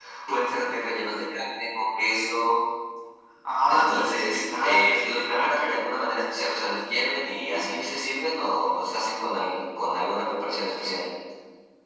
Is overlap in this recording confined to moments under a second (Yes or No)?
No